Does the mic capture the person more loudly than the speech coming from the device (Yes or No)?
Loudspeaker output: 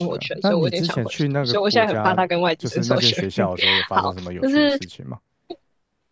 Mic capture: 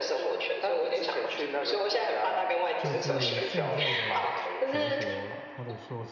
No